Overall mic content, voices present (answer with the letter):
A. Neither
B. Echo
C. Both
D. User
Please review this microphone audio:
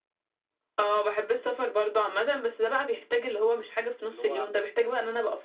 C